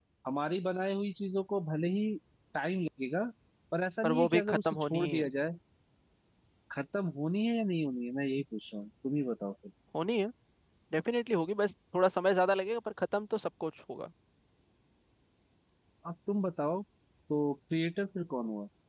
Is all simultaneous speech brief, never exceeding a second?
No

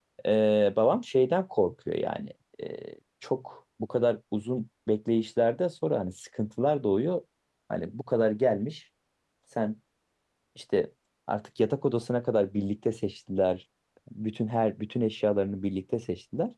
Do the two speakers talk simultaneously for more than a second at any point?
No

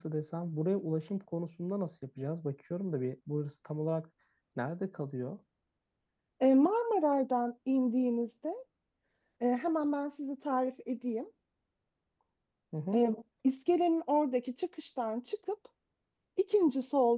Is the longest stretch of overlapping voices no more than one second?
Yes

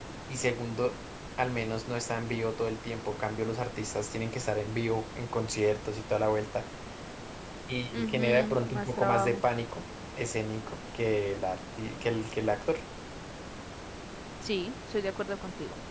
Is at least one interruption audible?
Yes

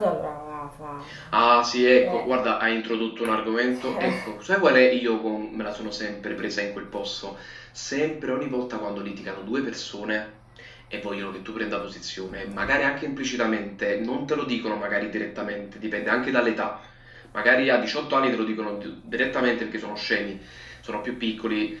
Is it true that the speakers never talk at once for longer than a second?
Yes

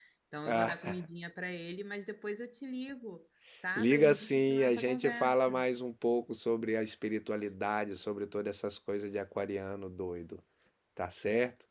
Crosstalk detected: Yes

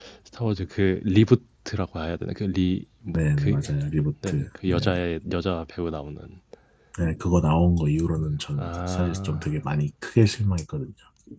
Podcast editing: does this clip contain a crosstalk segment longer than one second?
Yes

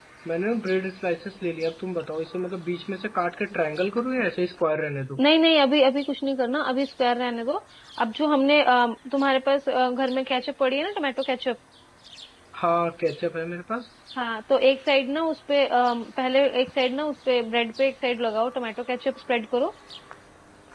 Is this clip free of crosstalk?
Yes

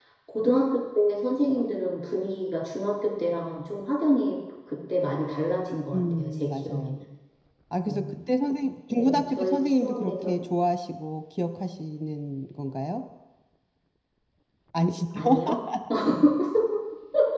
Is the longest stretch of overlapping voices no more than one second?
No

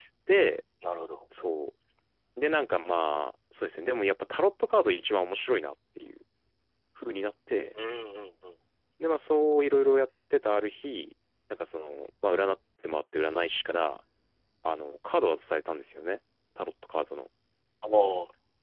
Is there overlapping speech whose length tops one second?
No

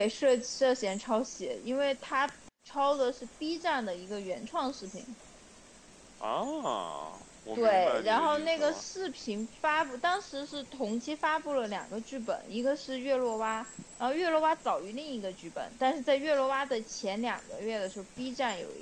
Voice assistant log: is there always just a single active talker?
No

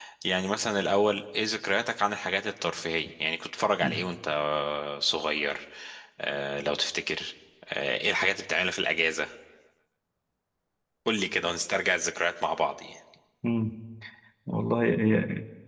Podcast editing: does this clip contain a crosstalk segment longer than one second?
No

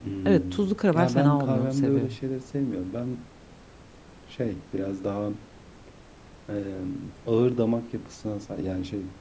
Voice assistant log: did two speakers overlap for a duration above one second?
Yes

